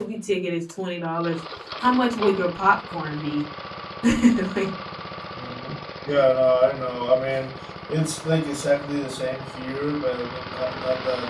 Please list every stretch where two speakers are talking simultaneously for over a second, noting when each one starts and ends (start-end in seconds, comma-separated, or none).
none